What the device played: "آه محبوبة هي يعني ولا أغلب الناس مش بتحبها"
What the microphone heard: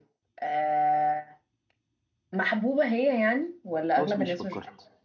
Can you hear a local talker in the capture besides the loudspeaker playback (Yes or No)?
Yes